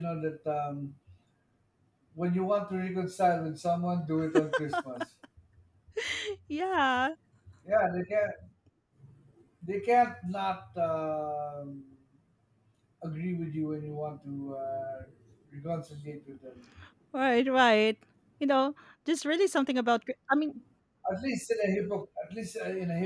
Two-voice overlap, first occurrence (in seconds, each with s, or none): none